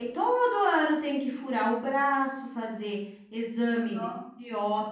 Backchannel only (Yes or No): Yes